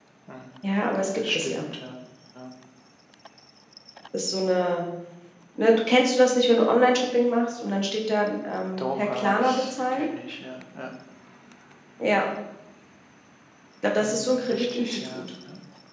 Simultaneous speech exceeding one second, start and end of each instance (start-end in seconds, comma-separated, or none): 8.8-10.1, 14.0-15.2